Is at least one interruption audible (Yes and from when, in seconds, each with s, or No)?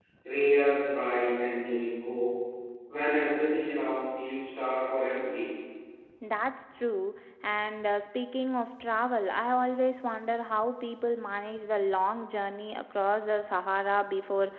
No